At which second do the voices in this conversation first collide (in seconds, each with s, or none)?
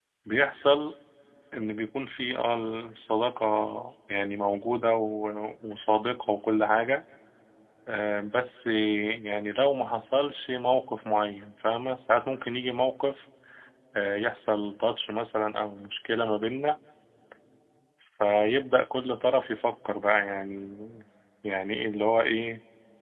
none